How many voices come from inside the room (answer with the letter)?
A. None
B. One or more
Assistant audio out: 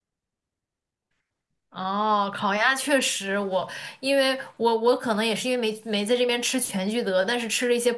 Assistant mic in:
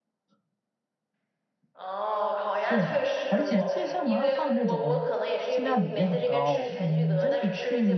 B